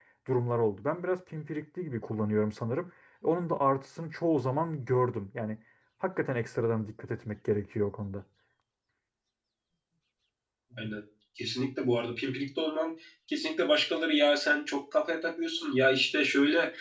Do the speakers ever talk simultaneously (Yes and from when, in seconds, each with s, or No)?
No